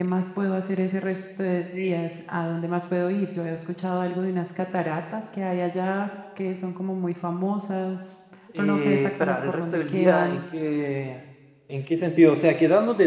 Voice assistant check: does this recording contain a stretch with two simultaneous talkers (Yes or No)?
Yes